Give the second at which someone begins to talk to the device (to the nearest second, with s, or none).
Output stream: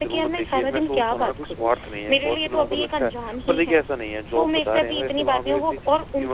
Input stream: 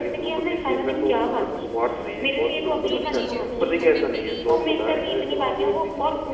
3 s